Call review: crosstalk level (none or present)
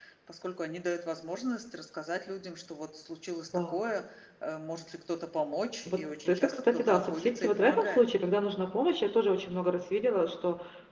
present